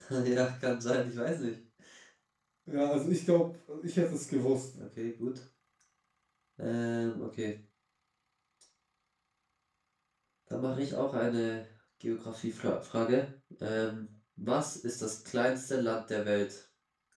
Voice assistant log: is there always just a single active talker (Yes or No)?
Yes